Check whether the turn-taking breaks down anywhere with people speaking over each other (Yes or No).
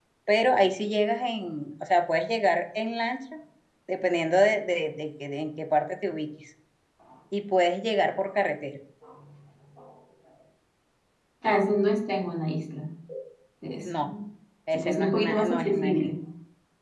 Yes